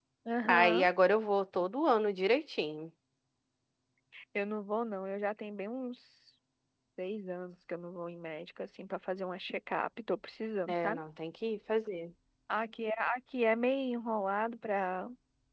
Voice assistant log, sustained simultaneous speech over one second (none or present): none